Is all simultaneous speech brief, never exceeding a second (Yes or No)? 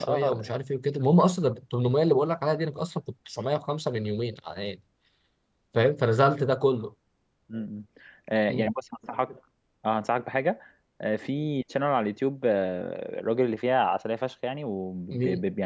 Yes